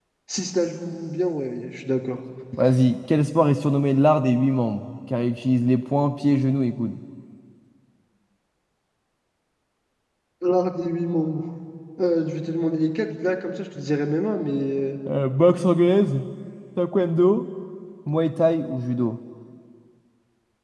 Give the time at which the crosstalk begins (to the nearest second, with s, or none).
none